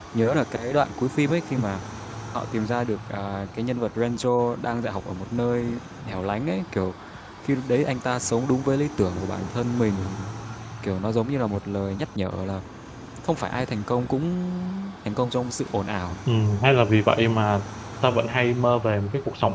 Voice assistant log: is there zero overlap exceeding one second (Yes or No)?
Yes